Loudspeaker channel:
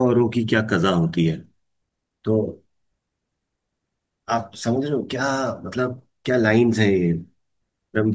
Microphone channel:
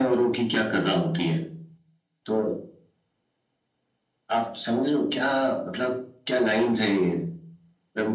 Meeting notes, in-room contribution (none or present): none